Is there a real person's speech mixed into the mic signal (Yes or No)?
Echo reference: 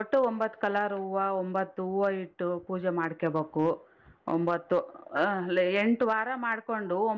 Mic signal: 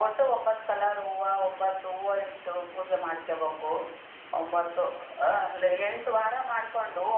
No